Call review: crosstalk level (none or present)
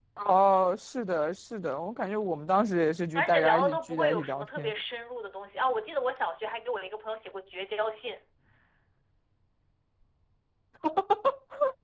present